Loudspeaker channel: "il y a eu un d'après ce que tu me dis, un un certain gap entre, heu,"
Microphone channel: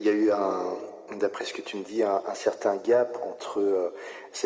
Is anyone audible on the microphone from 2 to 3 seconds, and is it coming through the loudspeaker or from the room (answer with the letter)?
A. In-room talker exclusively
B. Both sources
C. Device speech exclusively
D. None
C